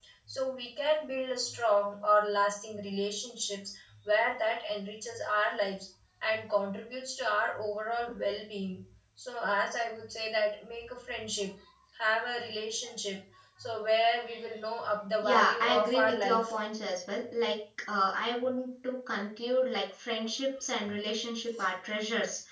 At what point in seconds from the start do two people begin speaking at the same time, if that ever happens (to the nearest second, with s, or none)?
15 s